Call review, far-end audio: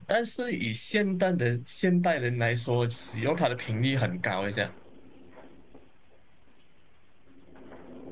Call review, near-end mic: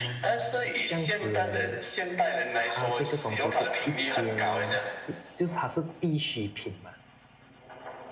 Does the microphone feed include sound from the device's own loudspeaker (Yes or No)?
Yes